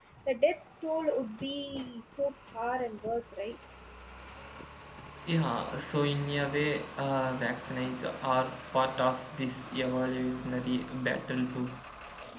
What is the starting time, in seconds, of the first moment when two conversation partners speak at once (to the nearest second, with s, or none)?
none